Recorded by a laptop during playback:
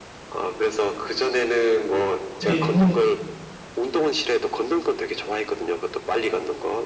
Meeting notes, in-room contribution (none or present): present